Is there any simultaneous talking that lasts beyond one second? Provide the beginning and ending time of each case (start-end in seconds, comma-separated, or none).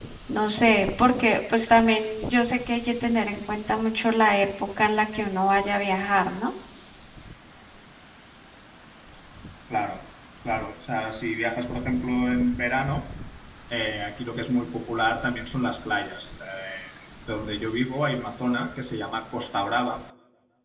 none